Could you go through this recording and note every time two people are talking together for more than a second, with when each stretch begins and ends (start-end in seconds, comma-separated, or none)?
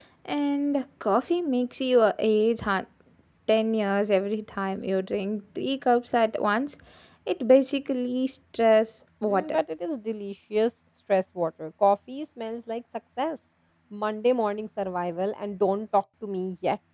none